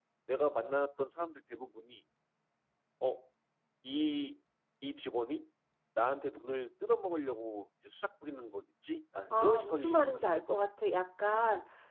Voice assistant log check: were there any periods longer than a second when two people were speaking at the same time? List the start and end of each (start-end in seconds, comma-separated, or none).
9.3-10.6